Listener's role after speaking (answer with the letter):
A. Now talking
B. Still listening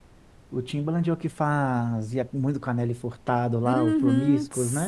A